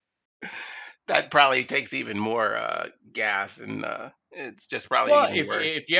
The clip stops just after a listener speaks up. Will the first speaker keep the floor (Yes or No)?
No